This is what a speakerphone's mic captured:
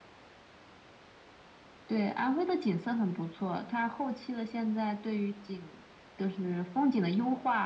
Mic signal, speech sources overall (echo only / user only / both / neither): echo only